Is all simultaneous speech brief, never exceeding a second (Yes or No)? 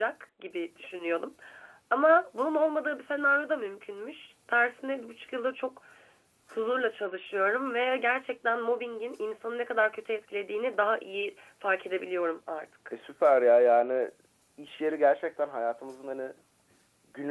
Yes